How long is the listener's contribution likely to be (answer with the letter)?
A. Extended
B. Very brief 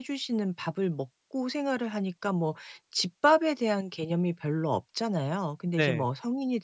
B